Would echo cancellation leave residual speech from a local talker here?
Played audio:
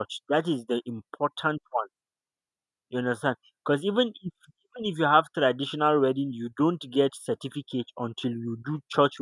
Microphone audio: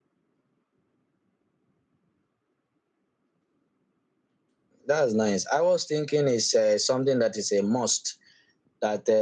Yes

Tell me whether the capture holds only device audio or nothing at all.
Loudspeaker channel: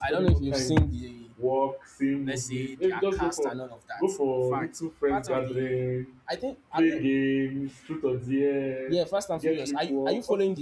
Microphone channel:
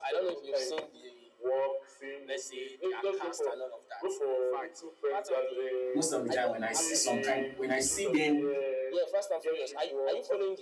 No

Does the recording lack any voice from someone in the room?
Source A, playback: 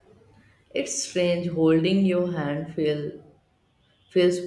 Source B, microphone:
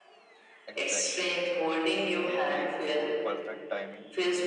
No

